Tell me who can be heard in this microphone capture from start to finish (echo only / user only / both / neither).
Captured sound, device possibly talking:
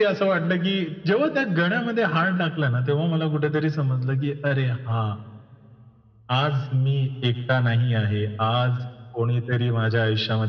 echo only